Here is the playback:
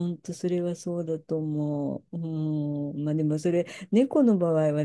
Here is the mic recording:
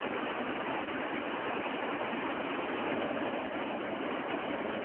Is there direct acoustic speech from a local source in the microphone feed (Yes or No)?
No